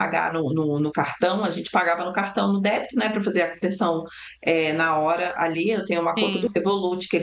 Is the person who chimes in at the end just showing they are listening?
Yes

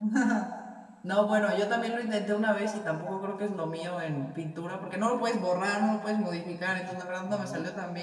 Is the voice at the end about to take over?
No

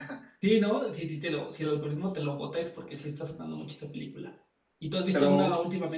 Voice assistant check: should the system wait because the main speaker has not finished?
Yes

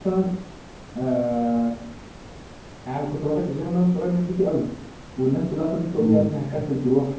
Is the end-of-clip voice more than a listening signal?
No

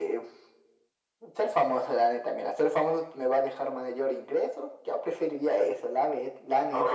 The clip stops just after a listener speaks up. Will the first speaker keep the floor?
No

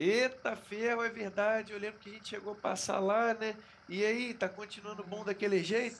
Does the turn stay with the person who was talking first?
No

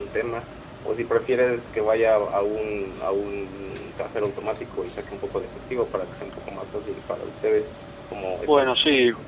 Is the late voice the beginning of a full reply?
Yes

